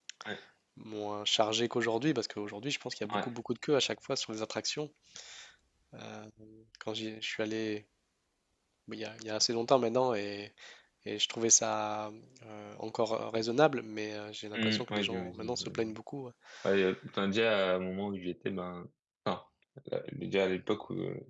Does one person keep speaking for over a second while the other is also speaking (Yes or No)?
Yes